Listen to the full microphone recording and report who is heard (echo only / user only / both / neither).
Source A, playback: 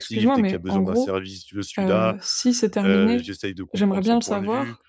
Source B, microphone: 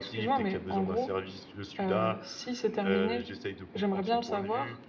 echo only